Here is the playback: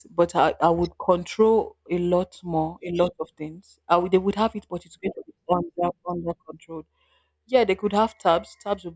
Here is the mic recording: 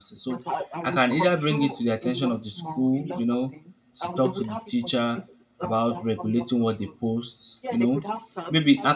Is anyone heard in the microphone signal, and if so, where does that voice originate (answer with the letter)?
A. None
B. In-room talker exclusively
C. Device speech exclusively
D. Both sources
D